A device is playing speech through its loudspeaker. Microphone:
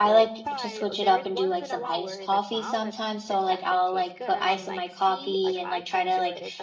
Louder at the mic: user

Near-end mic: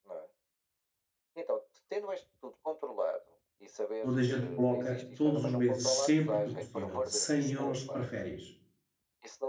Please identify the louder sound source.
user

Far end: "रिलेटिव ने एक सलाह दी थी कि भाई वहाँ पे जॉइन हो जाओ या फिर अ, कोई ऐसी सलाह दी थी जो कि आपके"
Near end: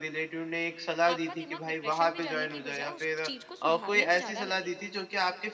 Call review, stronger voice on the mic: echo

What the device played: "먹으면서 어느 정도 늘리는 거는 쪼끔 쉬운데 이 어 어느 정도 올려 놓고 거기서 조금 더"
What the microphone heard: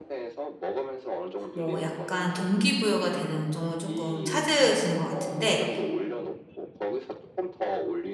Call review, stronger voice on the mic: user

